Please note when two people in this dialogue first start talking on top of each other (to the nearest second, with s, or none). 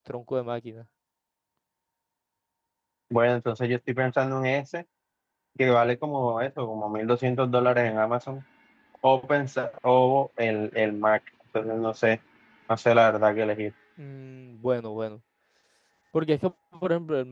none